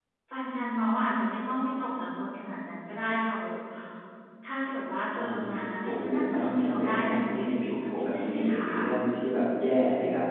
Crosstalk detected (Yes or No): Yes